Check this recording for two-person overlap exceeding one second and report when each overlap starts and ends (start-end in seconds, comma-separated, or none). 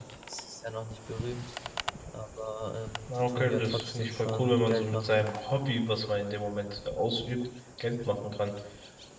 3.1-5.2